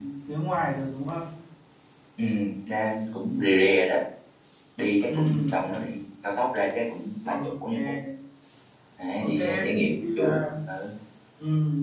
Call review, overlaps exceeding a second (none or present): present